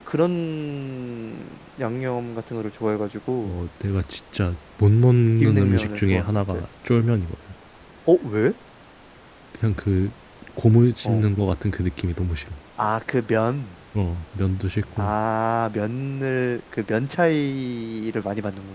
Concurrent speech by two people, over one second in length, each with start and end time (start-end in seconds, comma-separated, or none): 5.4-6.6